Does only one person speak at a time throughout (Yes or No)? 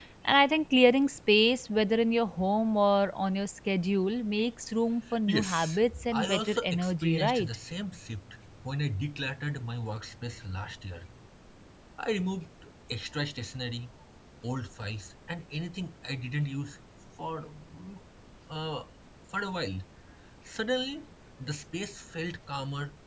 No